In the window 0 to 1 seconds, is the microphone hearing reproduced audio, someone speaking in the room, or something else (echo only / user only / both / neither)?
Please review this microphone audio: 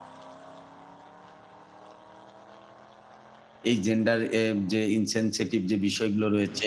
neither